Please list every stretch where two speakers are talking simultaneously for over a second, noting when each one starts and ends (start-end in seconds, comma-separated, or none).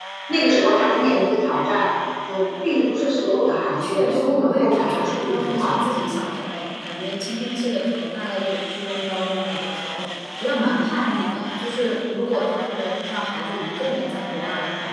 3.8-5.8